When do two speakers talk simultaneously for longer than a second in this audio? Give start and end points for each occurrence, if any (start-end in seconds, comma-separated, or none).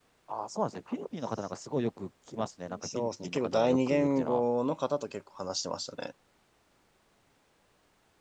2.8-4.4